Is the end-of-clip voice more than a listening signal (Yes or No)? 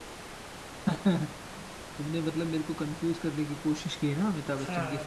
Yes